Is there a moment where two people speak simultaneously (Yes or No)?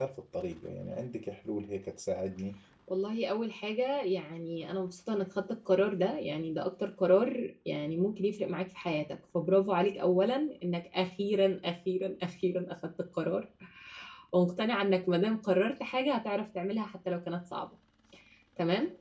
No